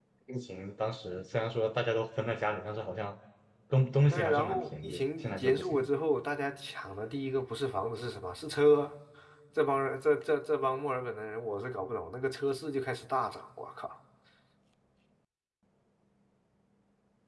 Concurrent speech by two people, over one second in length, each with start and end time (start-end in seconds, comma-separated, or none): 4.1-5.9